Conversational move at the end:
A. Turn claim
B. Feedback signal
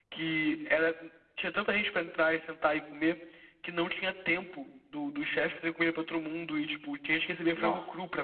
A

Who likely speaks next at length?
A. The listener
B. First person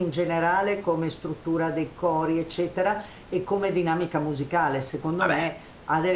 B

